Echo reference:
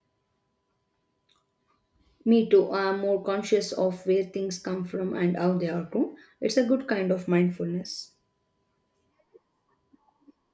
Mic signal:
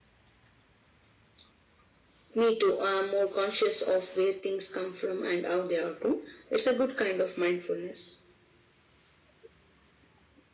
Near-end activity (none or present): none